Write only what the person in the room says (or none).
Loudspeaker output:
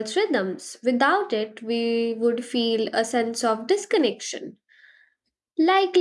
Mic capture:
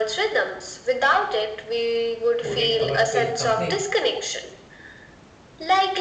would it ever feel complete?